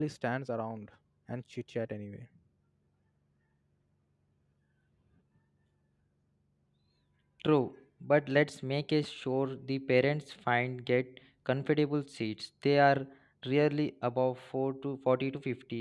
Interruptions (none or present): none